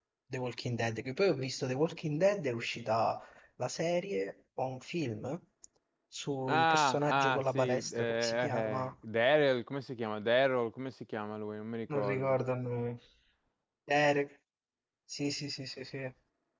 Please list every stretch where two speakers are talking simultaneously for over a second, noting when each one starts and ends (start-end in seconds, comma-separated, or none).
6.5-8.9